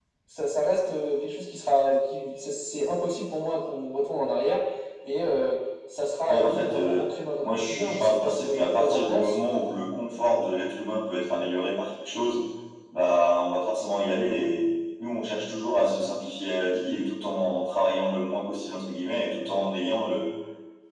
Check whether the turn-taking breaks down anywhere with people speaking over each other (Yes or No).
Yes